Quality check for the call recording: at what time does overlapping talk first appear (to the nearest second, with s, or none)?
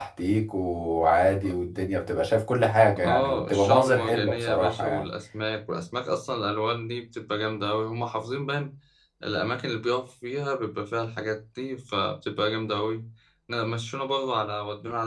3 s